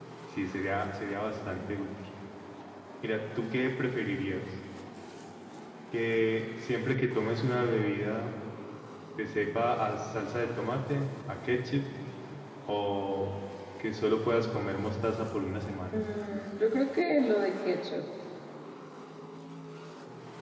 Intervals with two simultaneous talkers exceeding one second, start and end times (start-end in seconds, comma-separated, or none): none